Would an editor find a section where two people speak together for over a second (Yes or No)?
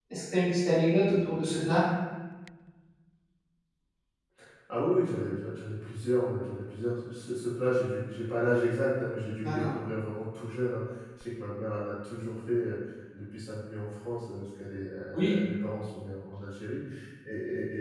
No